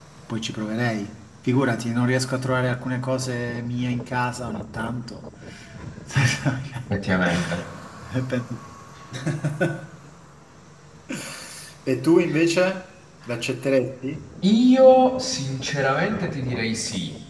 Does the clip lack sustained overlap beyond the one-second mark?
Yes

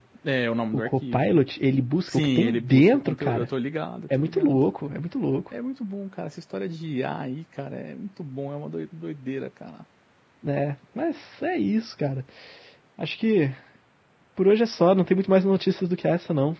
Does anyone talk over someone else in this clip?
Yes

